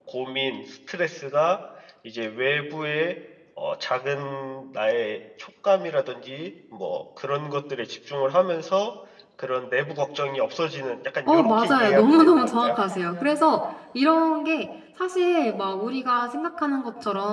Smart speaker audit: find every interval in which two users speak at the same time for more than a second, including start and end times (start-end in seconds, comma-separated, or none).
11.3-12.8